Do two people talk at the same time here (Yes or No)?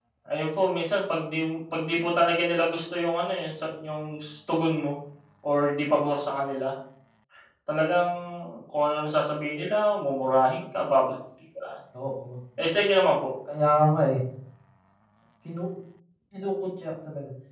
No